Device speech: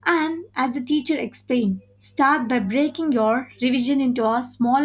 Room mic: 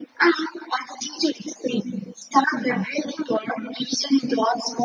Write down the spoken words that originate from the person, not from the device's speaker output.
none

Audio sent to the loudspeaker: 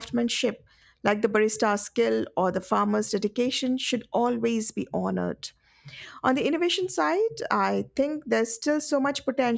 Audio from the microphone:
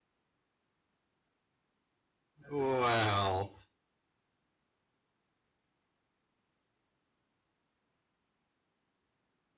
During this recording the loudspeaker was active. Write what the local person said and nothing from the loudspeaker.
Well,

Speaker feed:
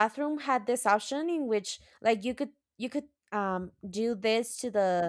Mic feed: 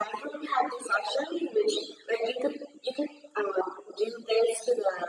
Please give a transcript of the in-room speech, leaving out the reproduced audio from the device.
none

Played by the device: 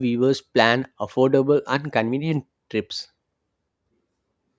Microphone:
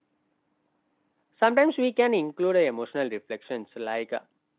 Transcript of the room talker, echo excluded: Sometimes we can include uh, emotional reflections like uh,

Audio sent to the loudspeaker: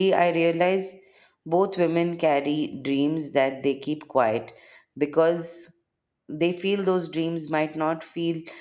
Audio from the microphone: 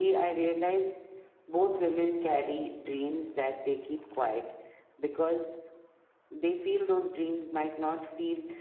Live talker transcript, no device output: none

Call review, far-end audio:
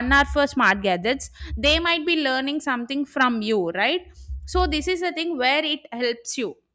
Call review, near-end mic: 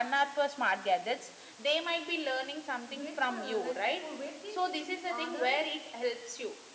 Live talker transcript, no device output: weight per uh, like for weight things it should be other

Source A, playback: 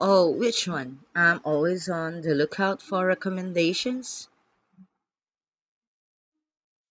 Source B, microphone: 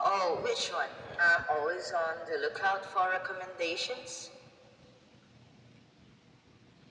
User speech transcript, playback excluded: none

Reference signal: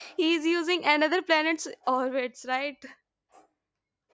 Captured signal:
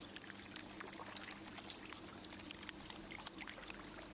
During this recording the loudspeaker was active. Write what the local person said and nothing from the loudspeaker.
none

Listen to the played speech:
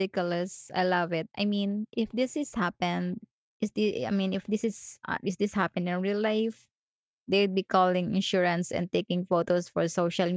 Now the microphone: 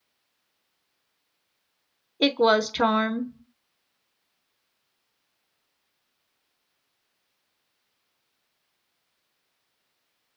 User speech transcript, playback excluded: equals charm.

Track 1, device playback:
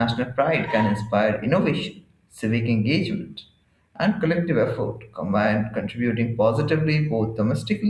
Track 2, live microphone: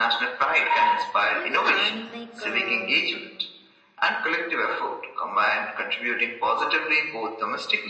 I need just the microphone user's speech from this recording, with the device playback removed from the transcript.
Oh, yeah. I mean, like, uh,

